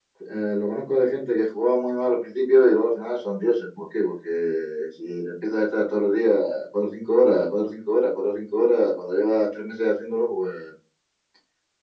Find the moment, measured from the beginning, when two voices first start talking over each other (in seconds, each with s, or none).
none